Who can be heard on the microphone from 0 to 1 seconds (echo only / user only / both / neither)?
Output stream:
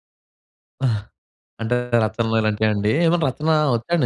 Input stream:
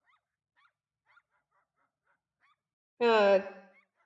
neither